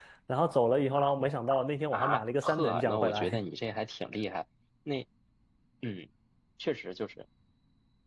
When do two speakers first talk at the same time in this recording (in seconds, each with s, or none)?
1.9 s